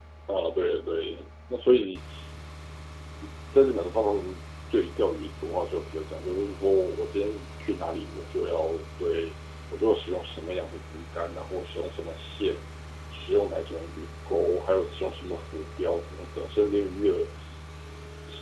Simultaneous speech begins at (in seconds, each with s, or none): none